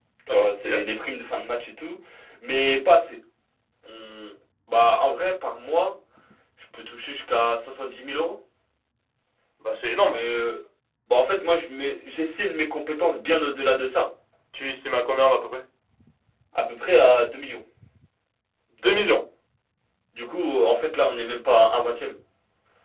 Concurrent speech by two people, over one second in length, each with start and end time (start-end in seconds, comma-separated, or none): none